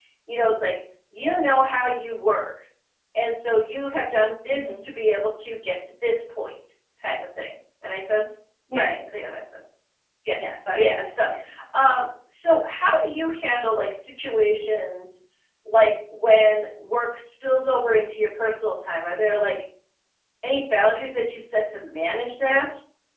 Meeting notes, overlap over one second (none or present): none